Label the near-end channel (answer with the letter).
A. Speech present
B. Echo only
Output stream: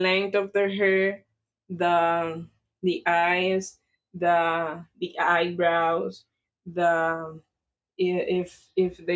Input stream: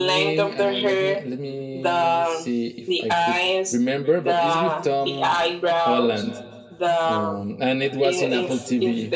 A